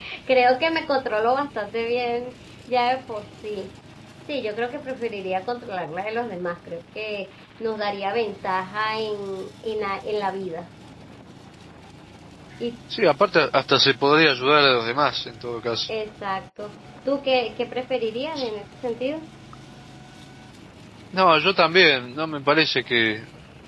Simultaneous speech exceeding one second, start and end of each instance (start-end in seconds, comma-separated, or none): none